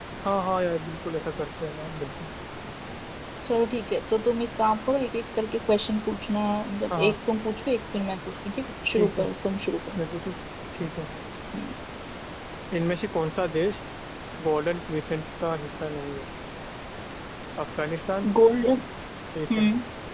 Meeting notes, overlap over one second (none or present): none